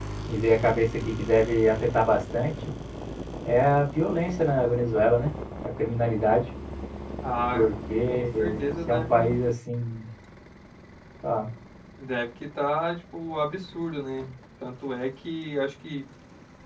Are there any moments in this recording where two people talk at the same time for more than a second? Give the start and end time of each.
8.1-9.4

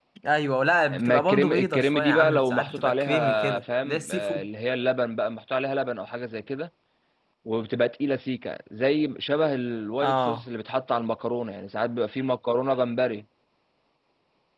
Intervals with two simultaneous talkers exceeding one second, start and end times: 0.9-4.5

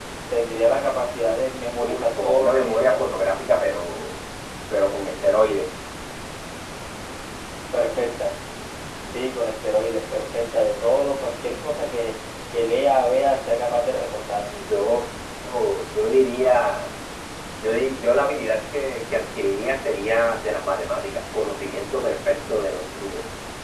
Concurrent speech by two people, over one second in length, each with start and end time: 1.8-3.0

